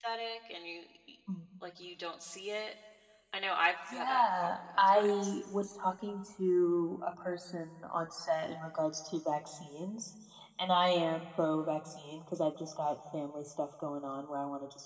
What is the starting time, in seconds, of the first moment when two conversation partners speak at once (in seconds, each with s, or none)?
3.9 s